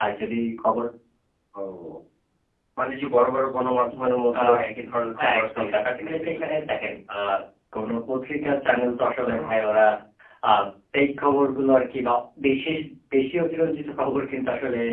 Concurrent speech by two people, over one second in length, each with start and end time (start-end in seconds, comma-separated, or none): 5.4-6.8